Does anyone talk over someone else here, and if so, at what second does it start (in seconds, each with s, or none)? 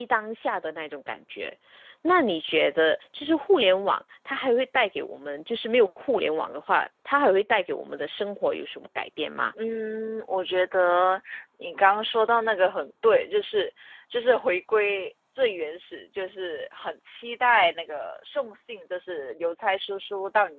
none